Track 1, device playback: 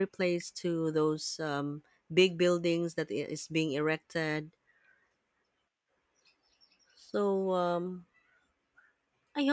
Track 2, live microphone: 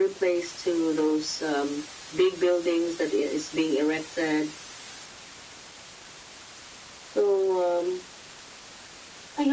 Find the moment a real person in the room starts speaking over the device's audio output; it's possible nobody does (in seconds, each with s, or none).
none